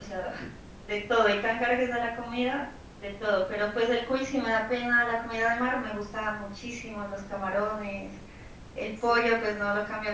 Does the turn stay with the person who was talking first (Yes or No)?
Yes